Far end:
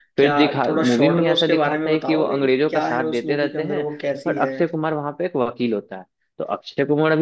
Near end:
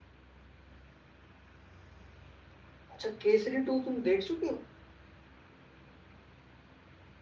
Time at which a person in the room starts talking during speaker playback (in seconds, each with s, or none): 2.9 s